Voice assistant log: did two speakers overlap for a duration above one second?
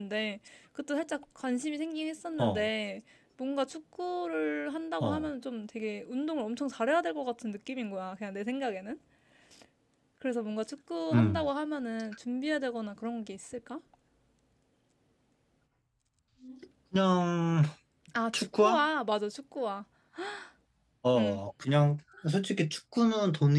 No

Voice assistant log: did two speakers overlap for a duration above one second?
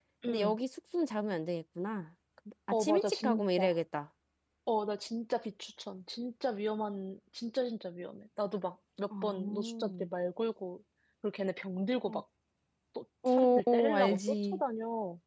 Yes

